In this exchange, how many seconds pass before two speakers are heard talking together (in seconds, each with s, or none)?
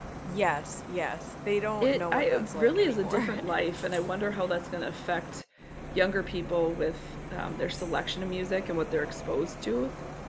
1.8 s